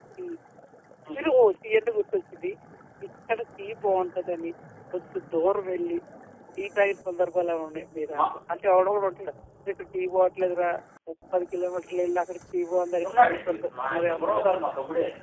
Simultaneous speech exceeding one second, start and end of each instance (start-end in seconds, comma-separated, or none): 13.1-14.6